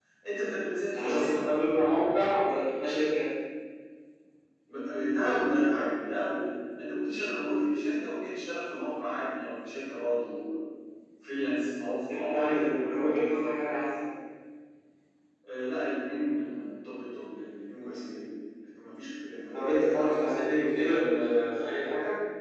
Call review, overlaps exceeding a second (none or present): present